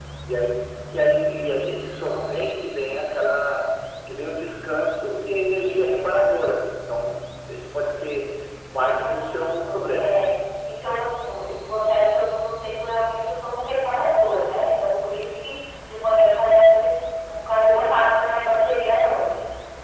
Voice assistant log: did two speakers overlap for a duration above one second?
Yes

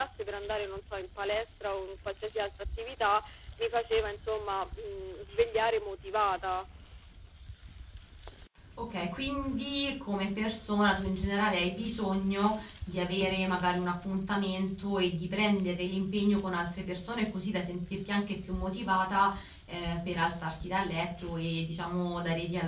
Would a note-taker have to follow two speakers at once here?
No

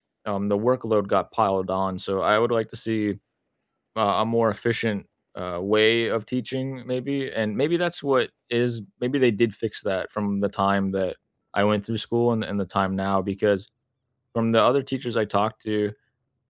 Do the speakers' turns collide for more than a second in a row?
No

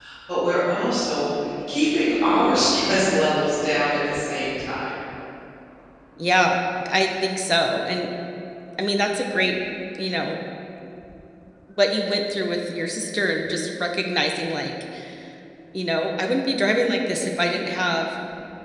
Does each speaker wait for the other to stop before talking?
Yes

